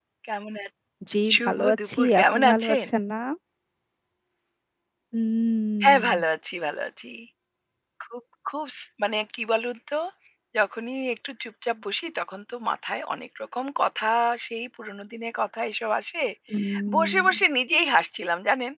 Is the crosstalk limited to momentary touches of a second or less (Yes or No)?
No